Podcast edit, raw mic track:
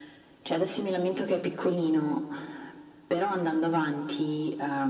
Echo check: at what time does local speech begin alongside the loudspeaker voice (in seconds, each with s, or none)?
none